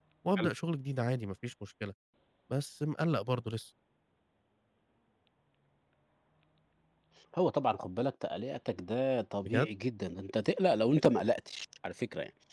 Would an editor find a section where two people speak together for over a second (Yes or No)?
No